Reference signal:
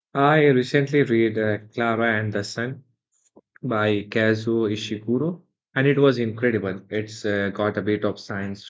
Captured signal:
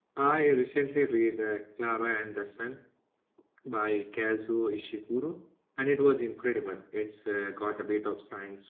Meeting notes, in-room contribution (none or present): none